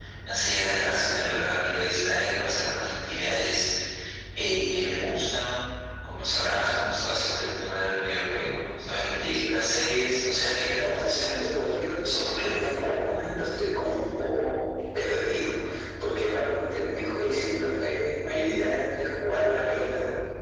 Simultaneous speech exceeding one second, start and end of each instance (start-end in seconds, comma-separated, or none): 10.8-12.6